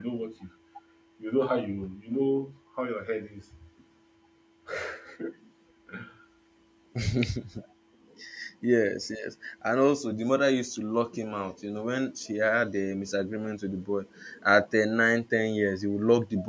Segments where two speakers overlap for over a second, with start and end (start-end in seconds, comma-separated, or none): none